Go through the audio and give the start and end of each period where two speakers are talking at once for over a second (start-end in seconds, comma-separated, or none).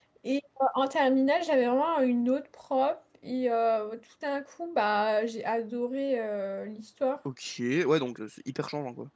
none